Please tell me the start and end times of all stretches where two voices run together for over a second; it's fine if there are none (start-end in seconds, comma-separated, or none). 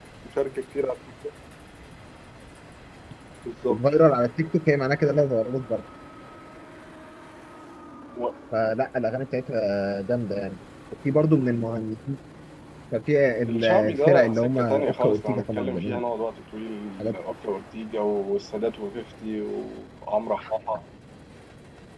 13.5-16.0